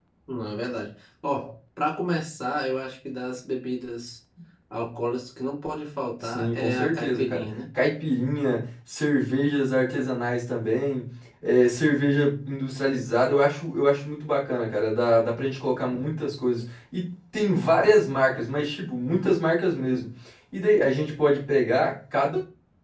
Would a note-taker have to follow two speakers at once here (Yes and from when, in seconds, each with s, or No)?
Yes, from 6.2 s